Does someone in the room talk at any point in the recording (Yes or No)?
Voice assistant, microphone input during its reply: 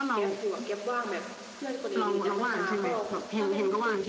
Yes